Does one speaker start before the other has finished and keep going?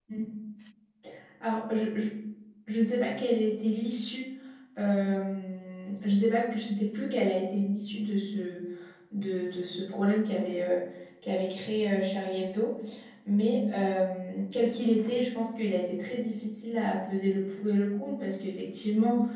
No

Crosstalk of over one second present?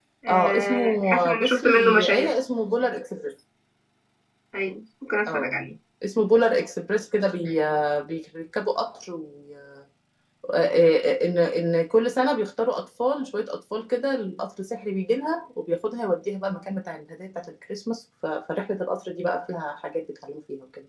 Yes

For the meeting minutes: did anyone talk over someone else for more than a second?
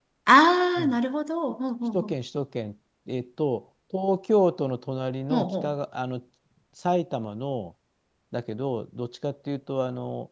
No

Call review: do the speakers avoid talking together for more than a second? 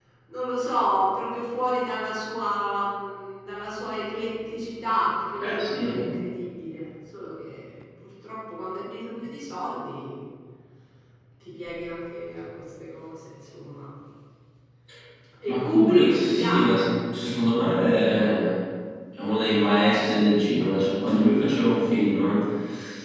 No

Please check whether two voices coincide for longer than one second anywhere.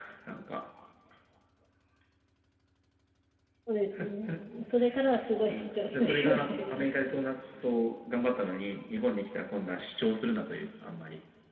Yes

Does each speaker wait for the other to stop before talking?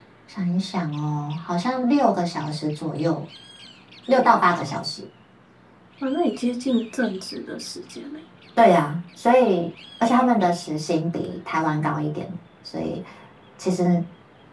Yes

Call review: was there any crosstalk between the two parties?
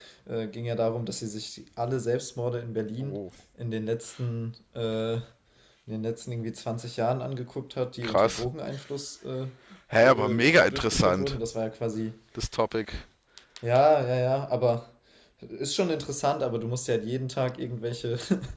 Yes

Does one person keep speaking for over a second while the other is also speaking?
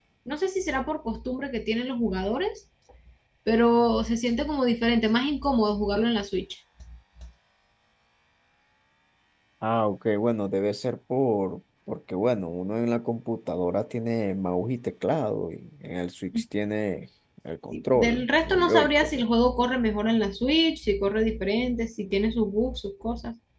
Yes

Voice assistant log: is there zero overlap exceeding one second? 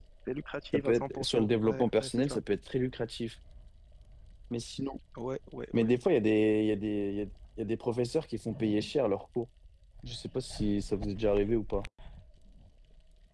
No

